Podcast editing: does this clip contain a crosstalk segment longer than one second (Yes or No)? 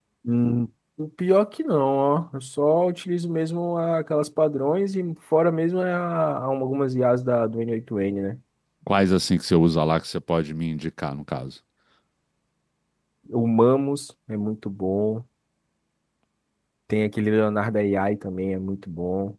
No